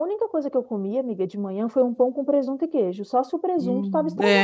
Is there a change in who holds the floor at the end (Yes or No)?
Yes